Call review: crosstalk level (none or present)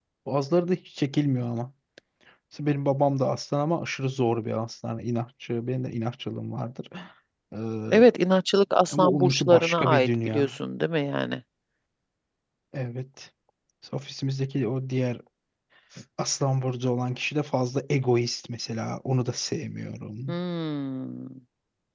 present